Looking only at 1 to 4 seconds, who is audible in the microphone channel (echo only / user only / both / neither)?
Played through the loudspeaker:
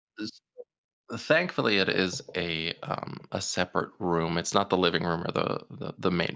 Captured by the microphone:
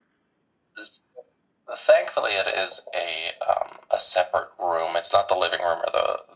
echo only